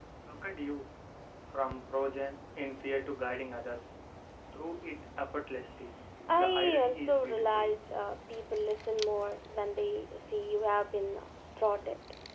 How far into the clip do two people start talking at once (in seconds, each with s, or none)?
6.2 s